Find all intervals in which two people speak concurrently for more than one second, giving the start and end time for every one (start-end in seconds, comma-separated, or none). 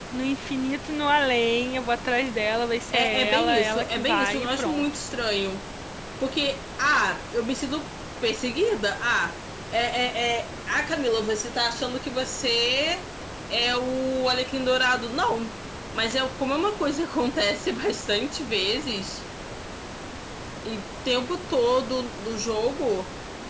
2.9-4.8